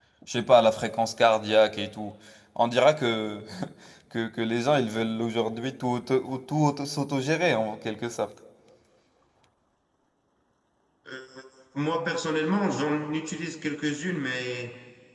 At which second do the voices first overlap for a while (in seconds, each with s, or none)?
none